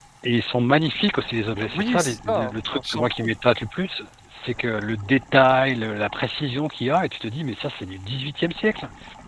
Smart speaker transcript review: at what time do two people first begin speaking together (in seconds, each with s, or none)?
1.6 s